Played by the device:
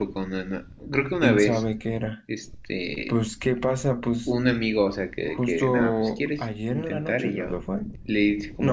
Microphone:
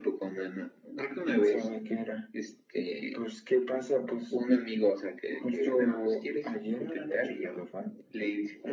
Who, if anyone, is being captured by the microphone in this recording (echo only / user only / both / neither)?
echo only